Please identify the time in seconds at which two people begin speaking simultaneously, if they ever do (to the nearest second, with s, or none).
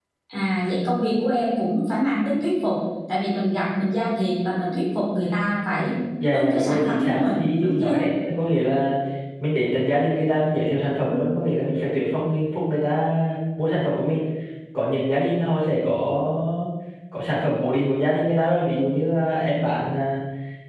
6 s